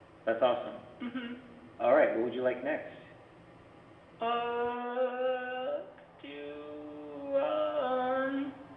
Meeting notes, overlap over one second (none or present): none